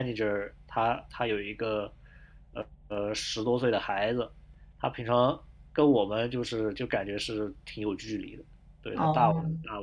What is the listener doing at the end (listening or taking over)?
listening